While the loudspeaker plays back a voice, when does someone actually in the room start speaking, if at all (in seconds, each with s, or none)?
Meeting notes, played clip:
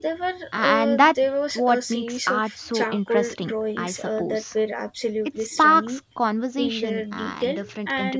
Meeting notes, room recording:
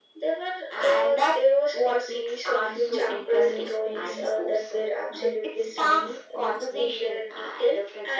2.5 s